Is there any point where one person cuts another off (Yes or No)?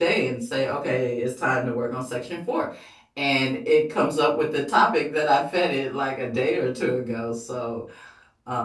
No